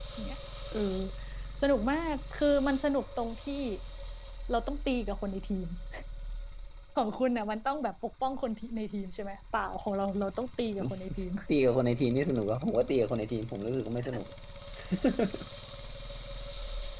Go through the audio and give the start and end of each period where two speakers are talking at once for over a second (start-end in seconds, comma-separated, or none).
none